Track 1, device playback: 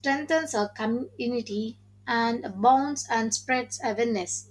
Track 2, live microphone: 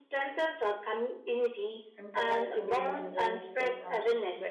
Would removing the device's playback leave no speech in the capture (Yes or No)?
No